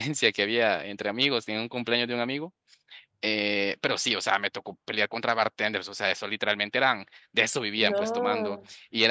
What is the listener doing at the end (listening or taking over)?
listening